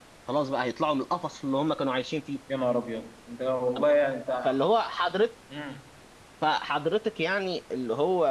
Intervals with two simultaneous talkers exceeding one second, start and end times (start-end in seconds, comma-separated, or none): none